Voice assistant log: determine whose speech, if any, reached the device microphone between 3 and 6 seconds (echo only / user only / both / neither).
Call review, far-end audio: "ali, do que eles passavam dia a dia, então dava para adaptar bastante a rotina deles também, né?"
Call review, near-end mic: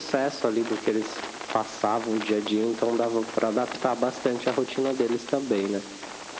echo only